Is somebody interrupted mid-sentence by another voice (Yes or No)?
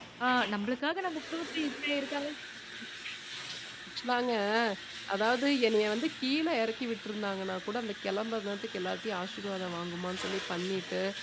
No